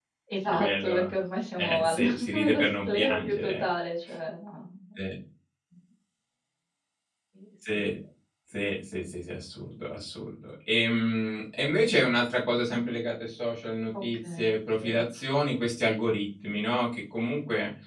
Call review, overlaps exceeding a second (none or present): present